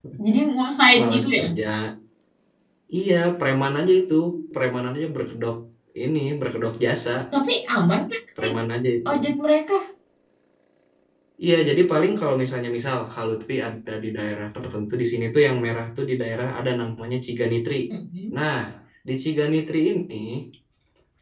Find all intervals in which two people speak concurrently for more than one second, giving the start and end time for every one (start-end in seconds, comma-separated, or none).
none